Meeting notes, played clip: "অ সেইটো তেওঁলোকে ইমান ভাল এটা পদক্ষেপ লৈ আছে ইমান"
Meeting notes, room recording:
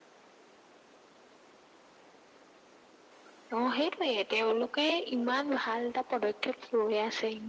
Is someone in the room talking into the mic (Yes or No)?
No